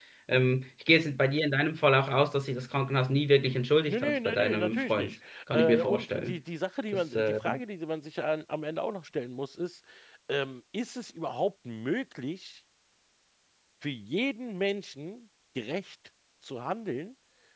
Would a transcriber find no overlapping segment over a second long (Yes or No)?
No